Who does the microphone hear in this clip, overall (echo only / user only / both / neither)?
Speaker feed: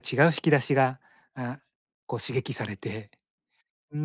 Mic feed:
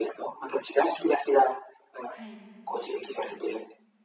both